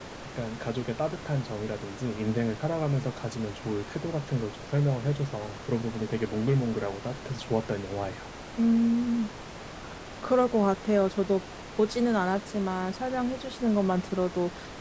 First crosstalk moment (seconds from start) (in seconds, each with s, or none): none